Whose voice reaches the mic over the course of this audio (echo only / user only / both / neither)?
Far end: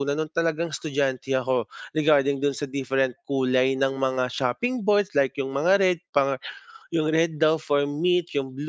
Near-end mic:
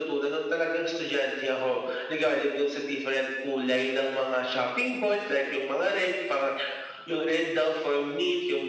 echo only